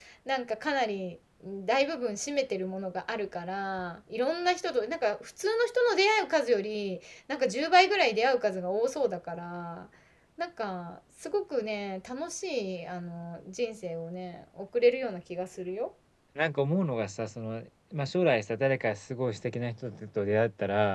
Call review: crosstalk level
none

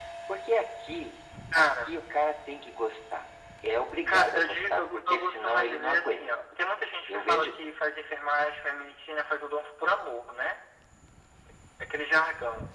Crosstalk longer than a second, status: present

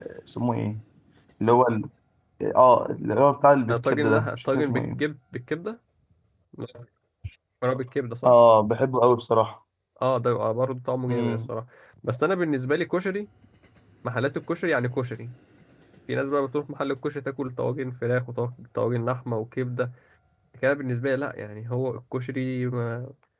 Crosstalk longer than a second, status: present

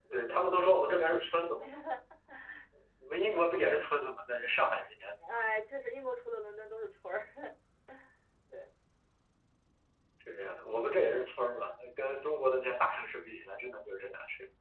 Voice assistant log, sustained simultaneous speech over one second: none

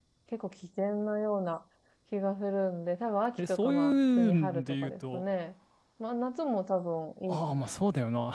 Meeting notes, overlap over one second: present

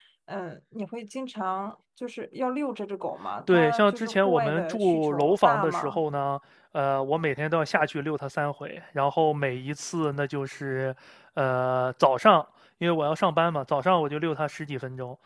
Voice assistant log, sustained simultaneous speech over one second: present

